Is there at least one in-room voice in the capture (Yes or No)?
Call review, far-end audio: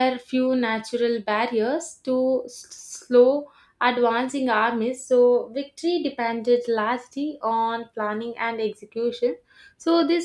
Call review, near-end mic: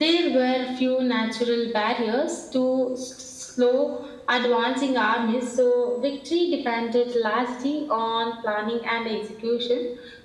No